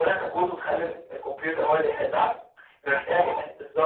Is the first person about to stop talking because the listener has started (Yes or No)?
No